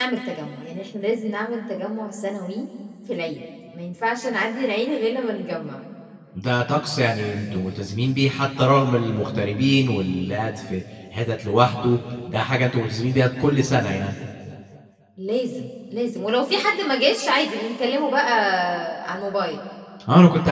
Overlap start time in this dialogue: none

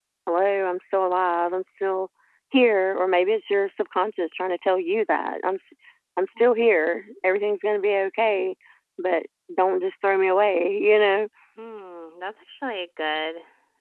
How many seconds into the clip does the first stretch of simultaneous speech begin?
none

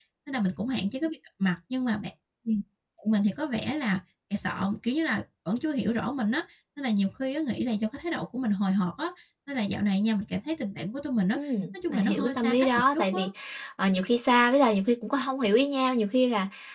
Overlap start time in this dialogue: 11.9 s

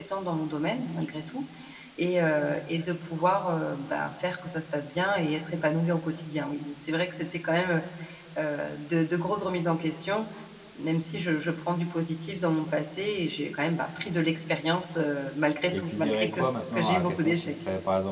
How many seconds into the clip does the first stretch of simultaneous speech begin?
15.7 s

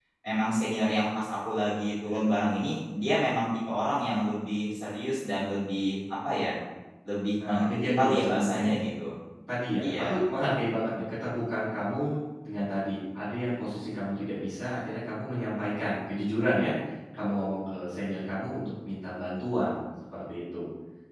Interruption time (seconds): 7.4 s

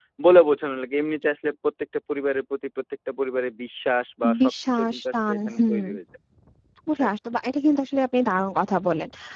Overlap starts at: 4.4 s

